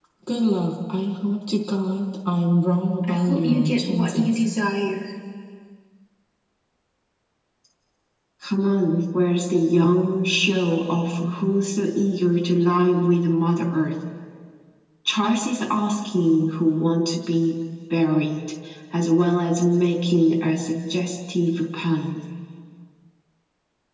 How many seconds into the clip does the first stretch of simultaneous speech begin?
3.0 s

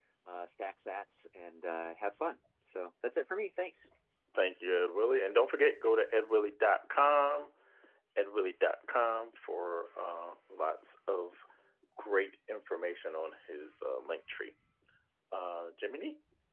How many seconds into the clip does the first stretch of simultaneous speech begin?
none

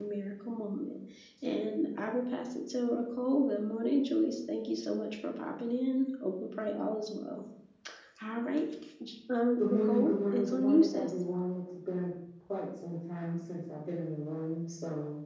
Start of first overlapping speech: 9.7 s

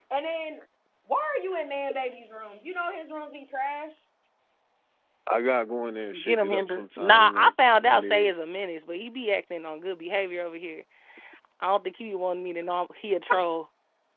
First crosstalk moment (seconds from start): 6.1 s

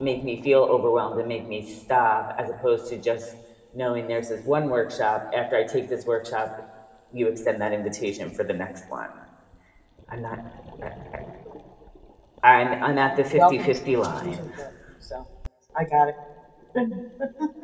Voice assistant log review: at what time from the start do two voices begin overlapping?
13.0 s

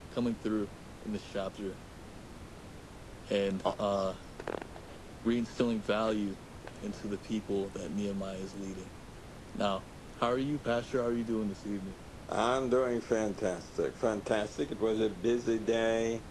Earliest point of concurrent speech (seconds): none

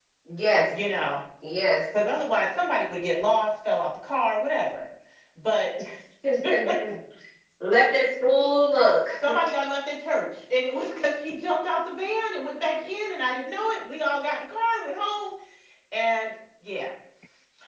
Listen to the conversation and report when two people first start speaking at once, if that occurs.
none

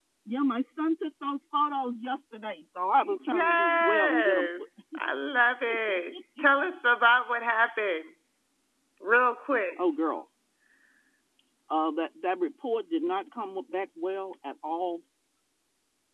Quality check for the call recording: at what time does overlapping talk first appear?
3.0 s

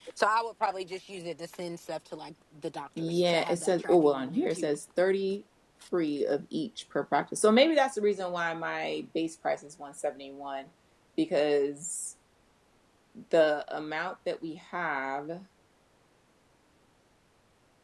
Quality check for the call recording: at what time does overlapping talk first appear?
3.0 s

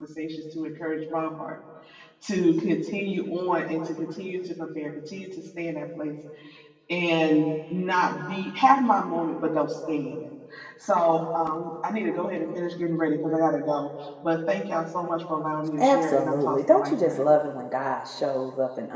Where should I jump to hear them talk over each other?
15.8 s

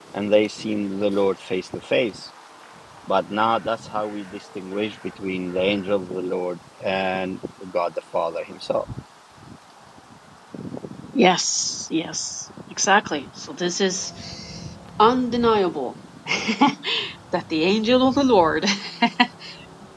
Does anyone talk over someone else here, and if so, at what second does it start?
none

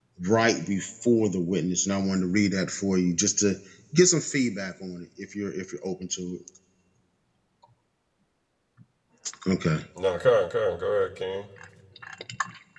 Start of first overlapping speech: none

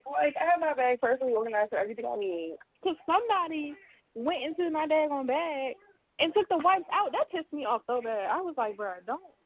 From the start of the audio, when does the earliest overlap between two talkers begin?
none

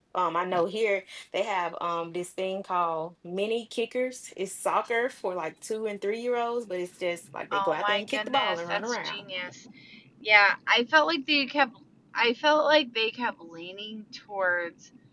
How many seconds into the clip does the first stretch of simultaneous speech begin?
7.5 s

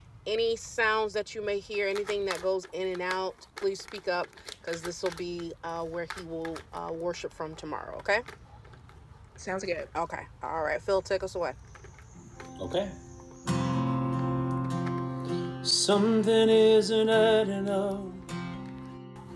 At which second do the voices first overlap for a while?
none

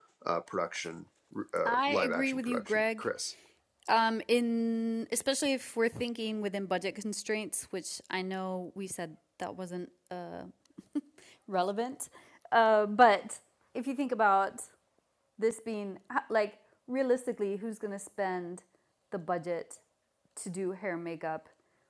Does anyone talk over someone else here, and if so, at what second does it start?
1.6 s

